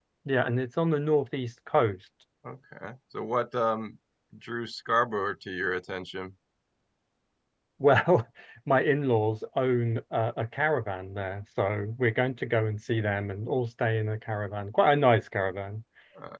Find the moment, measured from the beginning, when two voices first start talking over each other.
none

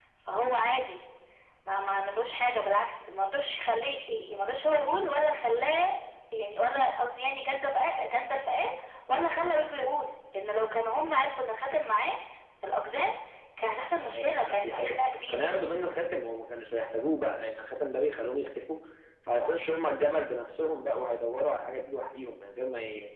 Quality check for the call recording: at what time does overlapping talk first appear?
14.1 s

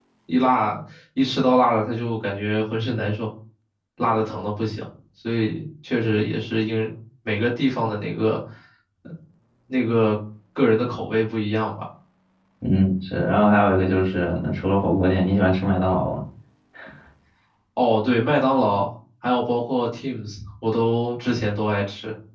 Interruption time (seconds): none

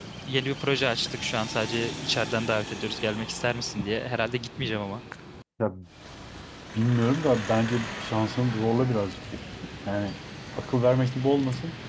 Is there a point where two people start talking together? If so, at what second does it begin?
none

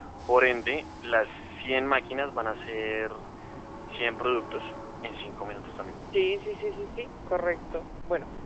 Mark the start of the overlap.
none

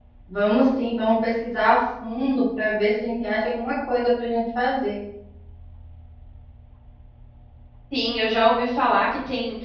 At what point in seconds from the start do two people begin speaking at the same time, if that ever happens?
none

